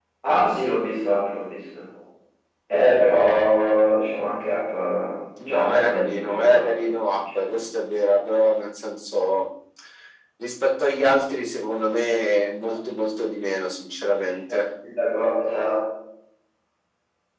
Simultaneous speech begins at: 5 s

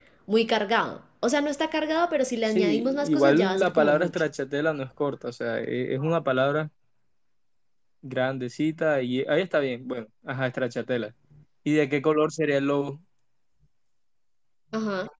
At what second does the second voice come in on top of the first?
2 s

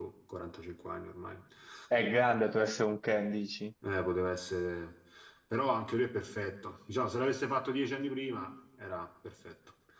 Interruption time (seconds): none

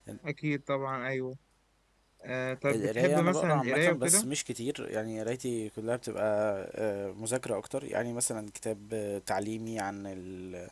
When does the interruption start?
3 s

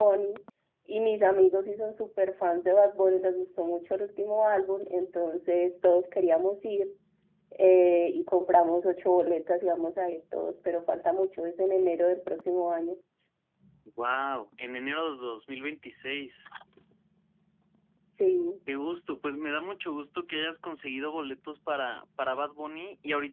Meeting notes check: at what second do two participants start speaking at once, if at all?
none

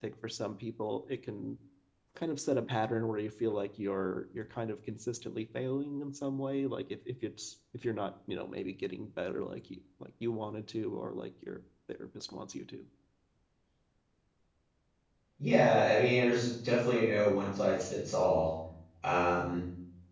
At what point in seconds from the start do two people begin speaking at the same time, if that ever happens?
none

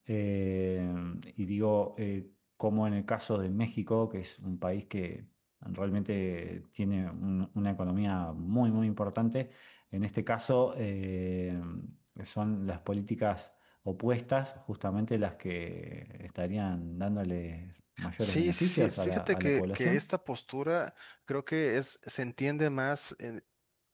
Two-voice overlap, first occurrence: 18 s

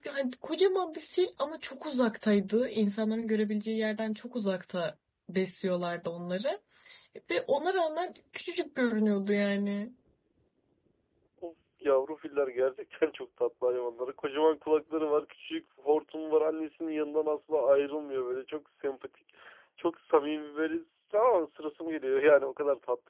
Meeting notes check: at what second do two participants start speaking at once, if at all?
none

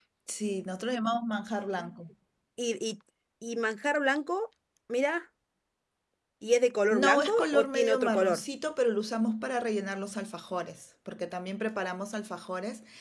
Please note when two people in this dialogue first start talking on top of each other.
7 s

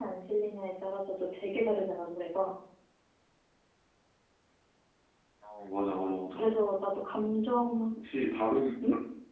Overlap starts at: none

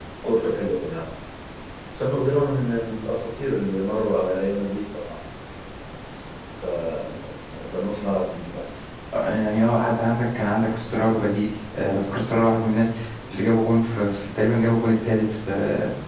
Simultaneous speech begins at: none

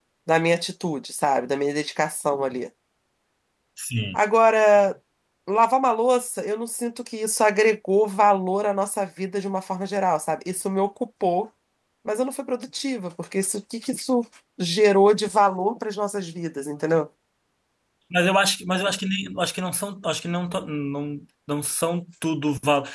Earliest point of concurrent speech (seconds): none

